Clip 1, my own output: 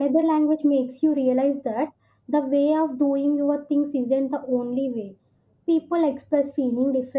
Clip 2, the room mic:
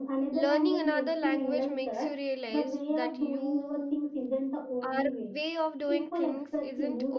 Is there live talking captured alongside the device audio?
Yes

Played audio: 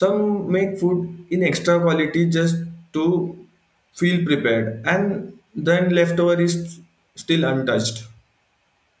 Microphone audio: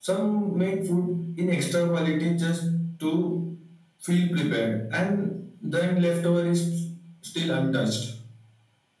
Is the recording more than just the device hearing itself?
No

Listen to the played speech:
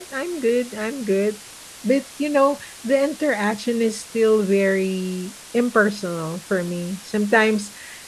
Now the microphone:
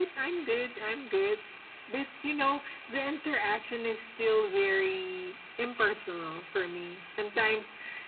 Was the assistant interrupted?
No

